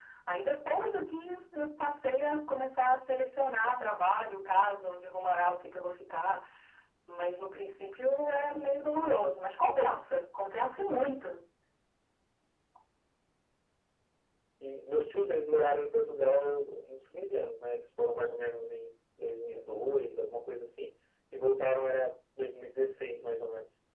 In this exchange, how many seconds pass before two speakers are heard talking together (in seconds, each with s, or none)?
none